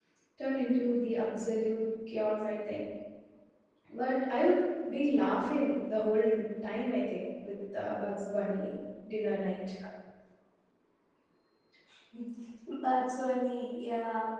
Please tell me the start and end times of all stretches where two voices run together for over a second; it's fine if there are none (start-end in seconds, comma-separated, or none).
none